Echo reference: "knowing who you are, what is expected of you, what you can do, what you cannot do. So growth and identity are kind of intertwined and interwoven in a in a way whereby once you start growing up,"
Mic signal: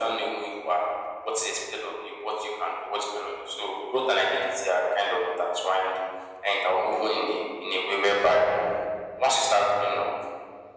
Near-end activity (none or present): none